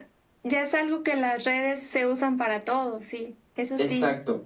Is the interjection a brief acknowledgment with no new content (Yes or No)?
No